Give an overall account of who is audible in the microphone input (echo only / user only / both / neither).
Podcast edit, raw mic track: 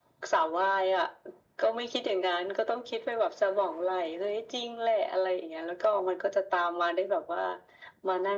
echo only